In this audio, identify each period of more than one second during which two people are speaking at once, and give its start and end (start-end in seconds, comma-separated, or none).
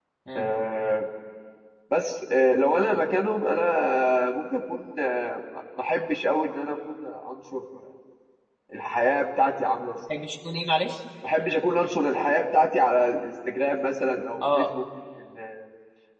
none